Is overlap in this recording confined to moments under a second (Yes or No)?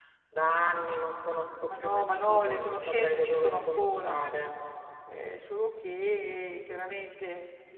No